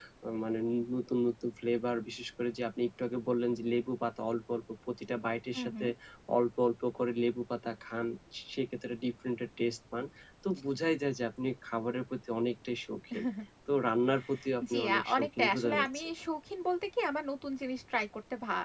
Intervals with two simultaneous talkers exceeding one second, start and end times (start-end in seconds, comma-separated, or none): 14.7-16.1